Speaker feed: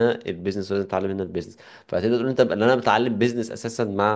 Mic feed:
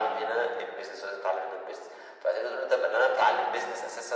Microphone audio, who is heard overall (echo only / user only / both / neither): echo only